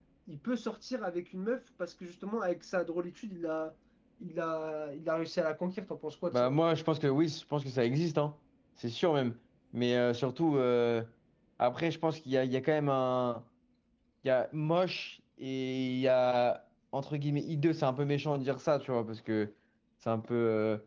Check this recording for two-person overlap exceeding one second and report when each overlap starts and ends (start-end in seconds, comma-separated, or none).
none